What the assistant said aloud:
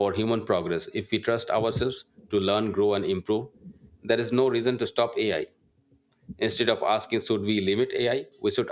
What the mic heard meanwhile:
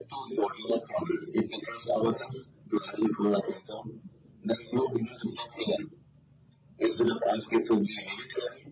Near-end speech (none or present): none